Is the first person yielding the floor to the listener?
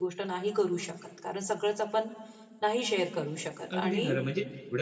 Yes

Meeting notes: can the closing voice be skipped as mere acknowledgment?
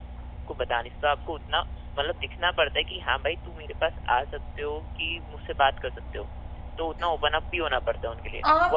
No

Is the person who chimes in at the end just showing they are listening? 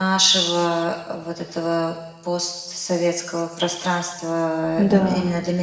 Yes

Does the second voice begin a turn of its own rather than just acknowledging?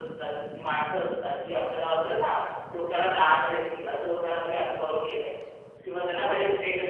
No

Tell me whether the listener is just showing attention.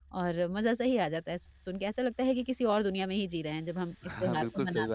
No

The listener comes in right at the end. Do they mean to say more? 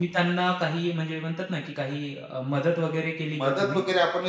Yes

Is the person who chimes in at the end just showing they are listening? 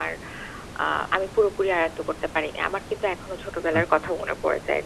Yes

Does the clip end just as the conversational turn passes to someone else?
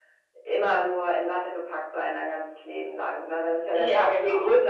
No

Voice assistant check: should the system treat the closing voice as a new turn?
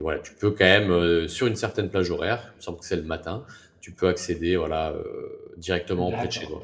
Yes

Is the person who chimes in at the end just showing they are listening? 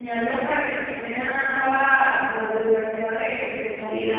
No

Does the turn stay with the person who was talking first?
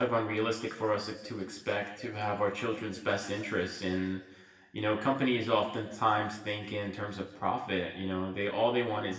Yes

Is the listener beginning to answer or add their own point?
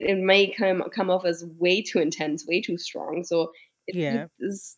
No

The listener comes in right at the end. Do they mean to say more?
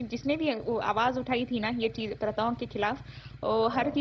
No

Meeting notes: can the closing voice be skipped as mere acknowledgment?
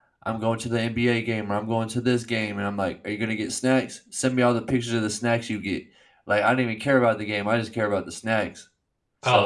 No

